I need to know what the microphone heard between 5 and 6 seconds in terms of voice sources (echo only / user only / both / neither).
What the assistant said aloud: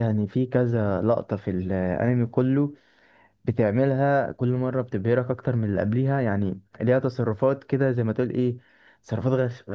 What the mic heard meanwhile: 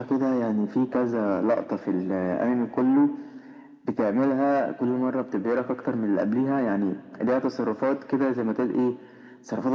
echo only